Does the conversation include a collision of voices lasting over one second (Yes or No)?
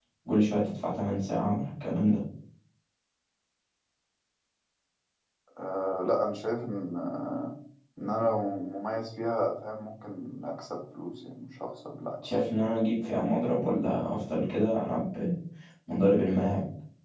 No